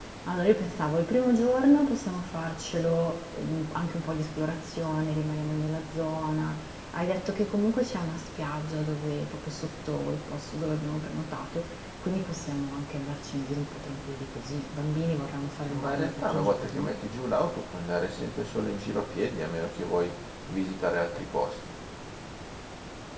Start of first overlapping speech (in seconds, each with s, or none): 15.6 s